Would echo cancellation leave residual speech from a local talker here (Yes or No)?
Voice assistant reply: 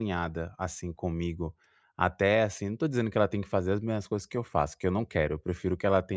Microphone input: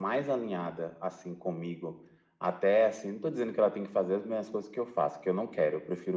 No